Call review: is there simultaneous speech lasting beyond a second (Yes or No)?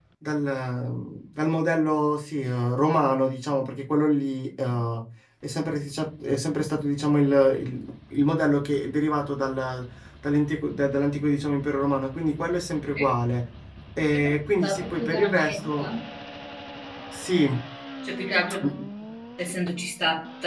Yes